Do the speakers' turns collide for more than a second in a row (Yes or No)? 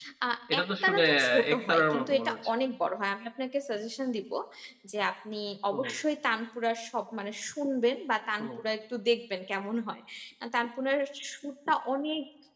Yes